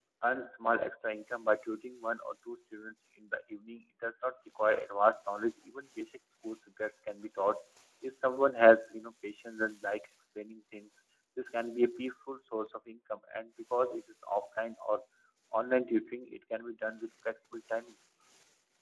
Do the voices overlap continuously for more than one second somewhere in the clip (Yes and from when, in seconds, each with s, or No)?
No